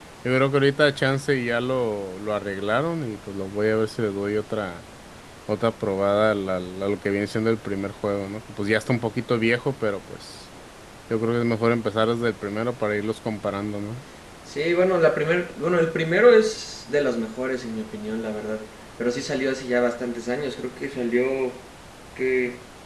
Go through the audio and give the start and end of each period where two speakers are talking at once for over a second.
none

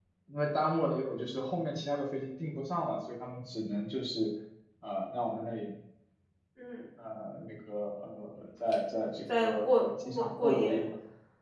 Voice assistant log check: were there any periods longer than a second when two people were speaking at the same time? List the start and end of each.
9.4-10.8

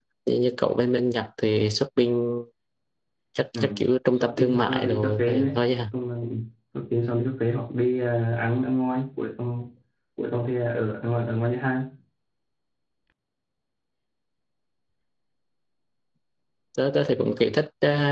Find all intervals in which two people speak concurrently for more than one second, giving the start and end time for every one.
4.2-5.5

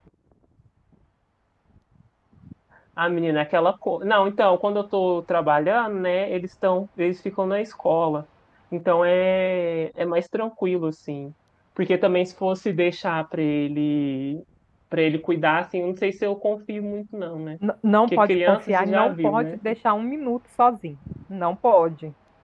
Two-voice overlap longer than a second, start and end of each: 18.1-19.6

